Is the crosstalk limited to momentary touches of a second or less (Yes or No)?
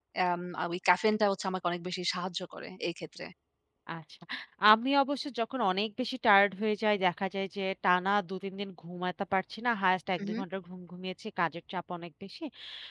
Yes